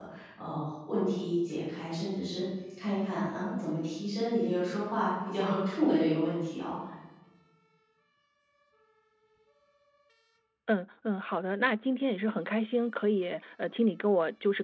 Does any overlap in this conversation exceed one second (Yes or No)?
No